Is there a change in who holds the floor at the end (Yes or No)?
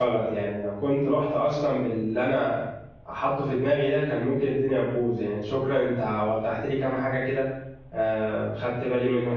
Yes